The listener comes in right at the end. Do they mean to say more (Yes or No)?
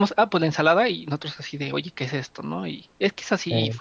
No